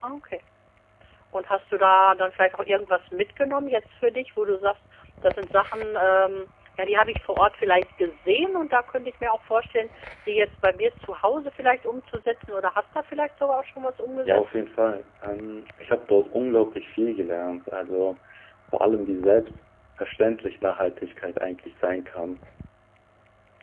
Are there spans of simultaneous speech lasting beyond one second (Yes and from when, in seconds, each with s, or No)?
No